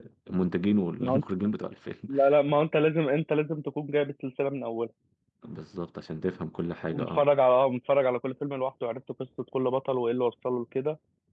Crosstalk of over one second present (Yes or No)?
No